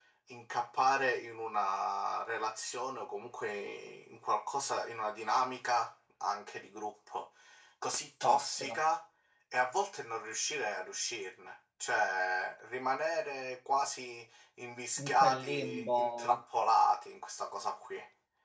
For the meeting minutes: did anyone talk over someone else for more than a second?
Yes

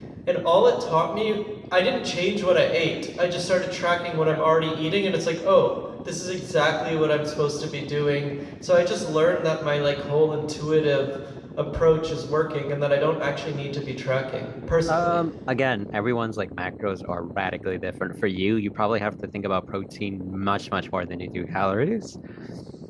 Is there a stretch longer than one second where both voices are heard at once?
No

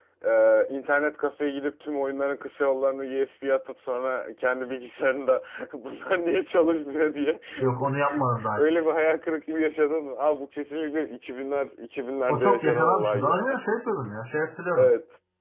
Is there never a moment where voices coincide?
No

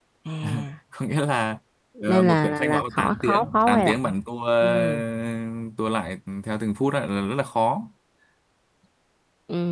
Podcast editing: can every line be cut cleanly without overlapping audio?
No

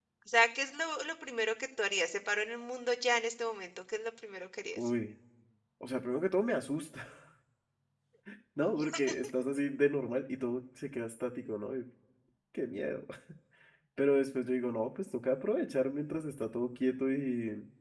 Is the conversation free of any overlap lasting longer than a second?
Yes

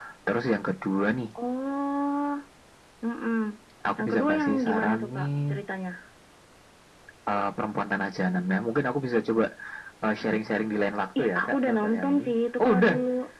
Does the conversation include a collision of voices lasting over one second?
Yes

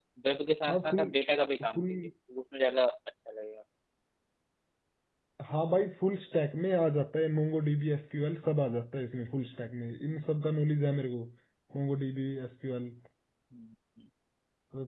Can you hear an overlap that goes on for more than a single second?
No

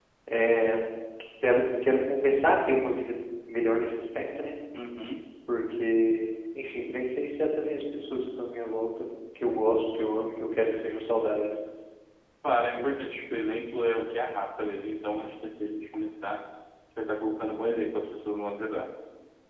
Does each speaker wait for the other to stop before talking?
Yes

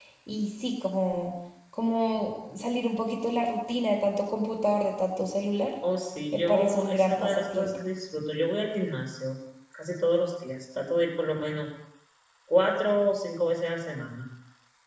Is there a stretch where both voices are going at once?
Yes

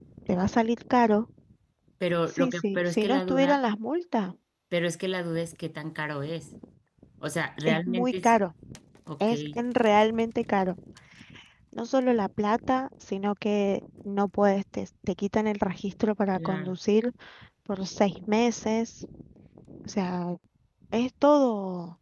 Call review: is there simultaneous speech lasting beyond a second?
Yes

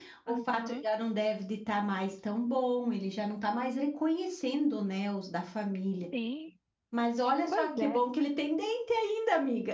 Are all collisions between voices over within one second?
Yes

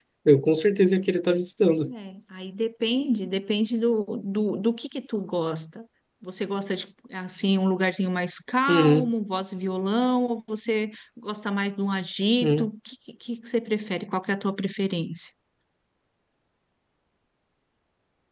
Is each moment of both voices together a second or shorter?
Yes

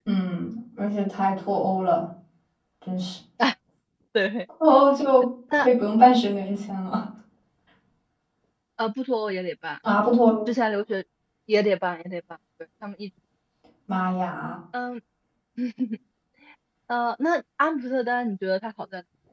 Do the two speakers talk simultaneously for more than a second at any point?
No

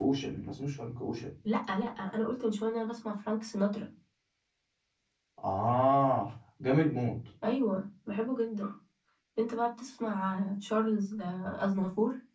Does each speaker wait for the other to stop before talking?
Yes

